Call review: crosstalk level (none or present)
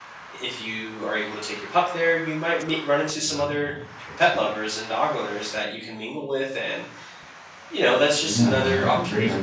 present